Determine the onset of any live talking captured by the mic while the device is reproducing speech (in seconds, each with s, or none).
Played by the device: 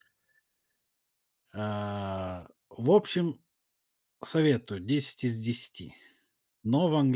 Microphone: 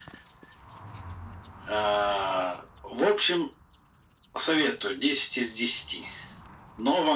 none